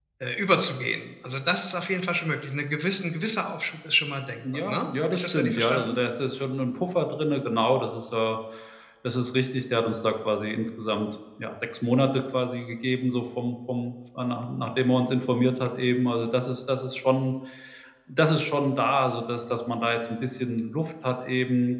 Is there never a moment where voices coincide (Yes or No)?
No